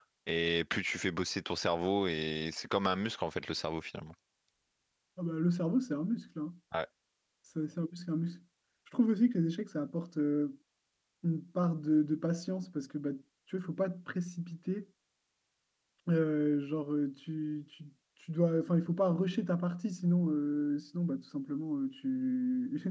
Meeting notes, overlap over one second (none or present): none